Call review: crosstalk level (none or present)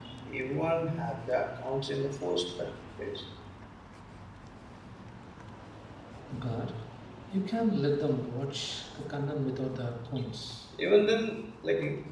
none